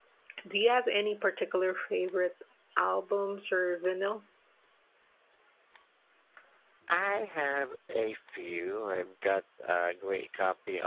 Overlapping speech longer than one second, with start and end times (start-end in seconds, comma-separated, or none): none